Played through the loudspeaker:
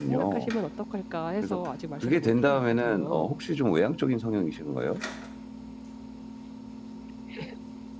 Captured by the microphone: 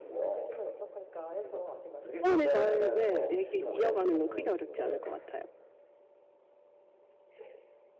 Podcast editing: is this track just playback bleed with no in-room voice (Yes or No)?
No